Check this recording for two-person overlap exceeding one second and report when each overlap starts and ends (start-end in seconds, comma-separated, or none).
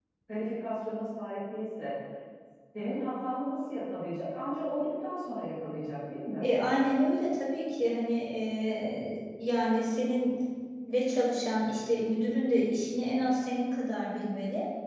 none